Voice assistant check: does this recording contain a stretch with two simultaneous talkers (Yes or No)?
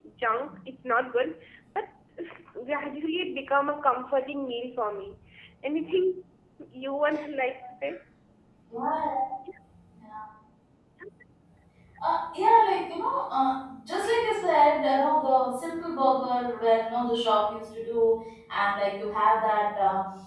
No